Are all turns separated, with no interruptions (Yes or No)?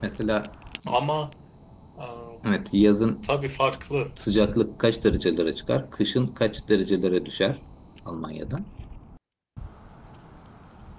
Yes